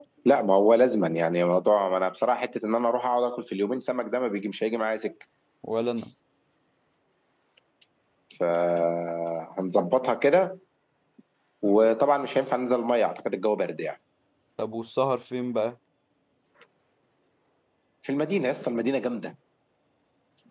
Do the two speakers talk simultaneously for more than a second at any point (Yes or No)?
No